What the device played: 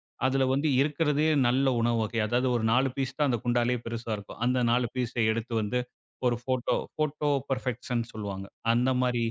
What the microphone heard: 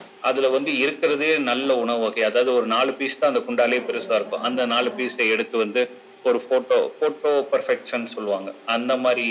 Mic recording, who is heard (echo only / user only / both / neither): both